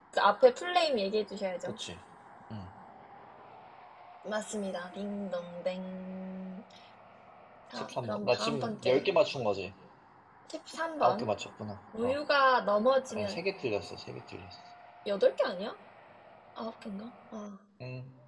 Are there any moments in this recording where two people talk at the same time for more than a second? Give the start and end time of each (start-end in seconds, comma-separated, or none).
7.7-9.1